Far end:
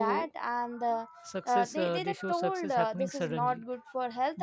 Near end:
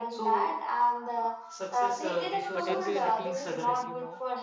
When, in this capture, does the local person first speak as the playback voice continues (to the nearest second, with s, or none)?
3 s